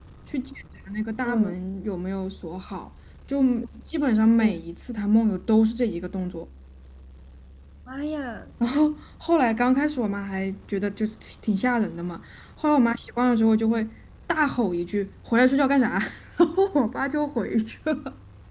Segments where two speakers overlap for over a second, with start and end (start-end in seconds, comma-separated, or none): none